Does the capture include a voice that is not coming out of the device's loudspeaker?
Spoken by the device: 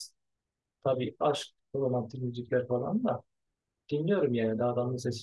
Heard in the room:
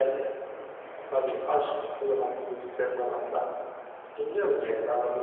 No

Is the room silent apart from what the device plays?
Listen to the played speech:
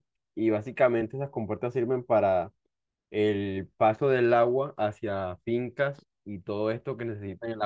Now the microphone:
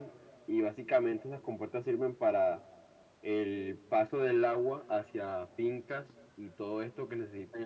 Yes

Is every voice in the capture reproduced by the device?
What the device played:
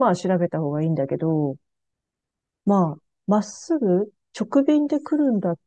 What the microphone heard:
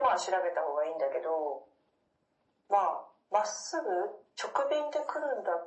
Yes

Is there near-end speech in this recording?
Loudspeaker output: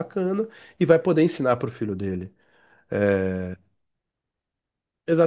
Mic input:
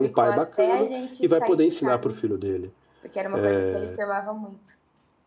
Yes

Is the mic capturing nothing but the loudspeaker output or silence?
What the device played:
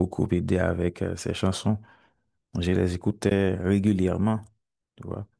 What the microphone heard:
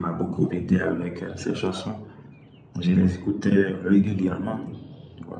Yes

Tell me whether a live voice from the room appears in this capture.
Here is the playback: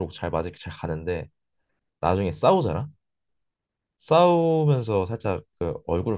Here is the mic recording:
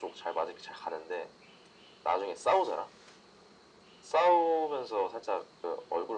No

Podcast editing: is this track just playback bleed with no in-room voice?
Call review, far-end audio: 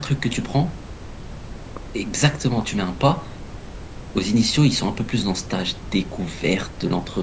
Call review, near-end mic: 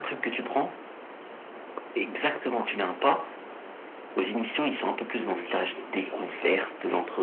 No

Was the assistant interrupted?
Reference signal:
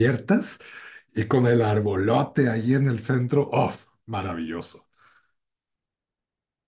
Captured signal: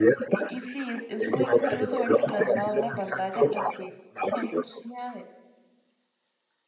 Yes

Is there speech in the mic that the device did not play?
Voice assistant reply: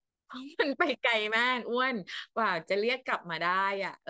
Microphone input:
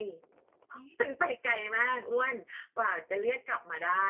No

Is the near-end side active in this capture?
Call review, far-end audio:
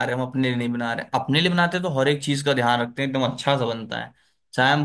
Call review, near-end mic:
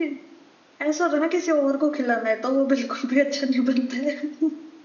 Yes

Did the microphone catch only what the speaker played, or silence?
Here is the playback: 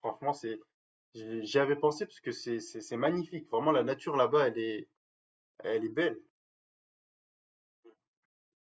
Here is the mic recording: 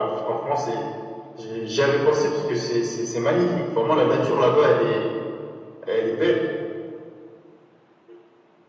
Yes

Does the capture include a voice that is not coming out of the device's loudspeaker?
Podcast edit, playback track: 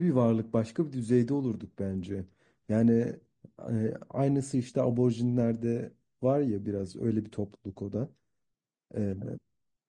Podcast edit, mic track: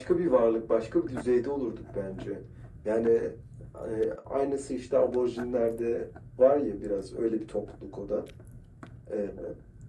No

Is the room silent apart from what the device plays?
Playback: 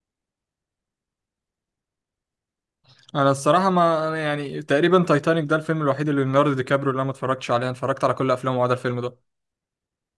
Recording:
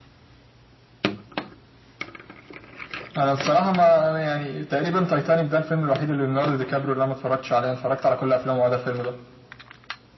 Yes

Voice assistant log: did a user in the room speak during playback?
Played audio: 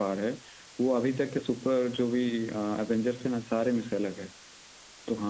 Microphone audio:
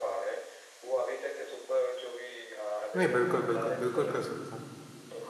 Yes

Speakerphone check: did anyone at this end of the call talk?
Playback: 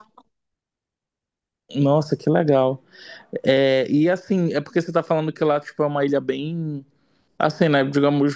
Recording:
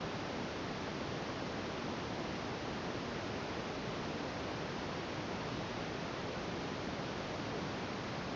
No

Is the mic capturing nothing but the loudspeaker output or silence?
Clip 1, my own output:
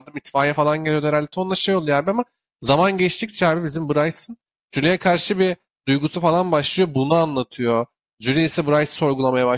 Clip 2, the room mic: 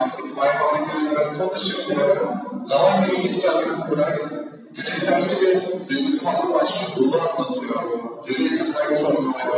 Yes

